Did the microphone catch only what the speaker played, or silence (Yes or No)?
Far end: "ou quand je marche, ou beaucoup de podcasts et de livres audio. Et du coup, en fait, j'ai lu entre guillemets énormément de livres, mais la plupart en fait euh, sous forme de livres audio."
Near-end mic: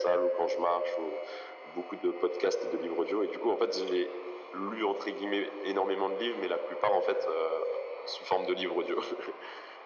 Yes